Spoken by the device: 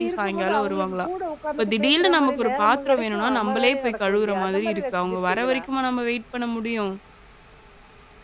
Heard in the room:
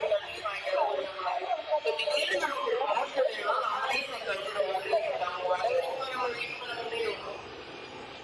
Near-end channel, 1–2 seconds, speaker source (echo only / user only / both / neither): echo only